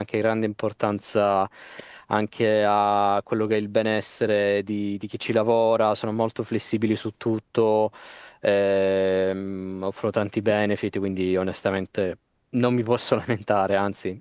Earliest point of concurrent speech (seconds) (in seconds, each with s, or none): none